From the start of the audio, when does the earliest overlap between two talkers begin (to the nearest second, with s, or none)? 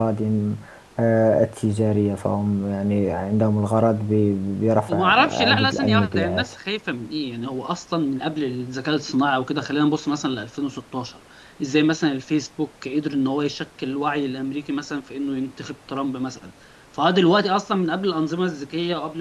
5 s